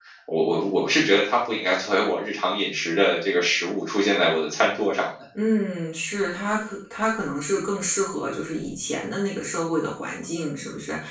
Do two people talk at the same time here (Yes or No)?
No